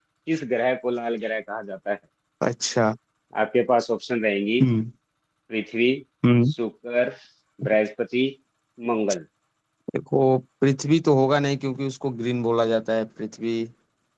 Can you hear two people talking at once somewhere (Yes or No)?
No